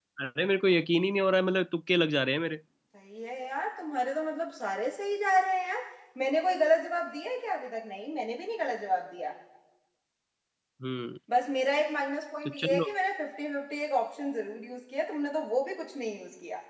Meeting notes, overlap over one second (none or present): none